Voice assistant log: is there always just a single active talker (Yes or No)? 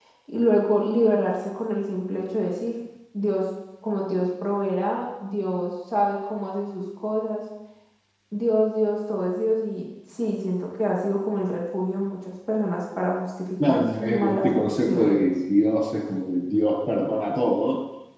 No